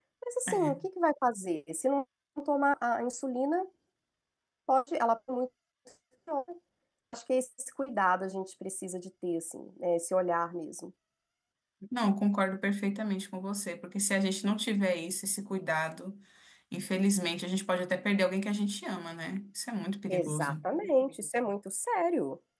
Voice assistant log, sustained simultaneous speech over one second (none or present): none